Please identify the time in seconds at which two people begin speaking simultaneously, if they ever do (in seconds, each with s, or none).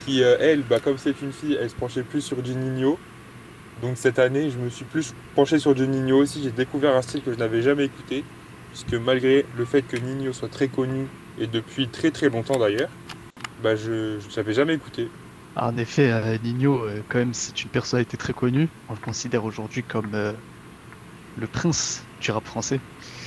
none